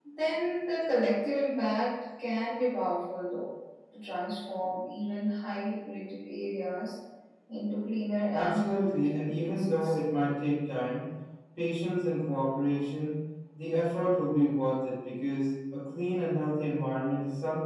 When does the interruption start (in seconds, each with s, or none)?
8.3 s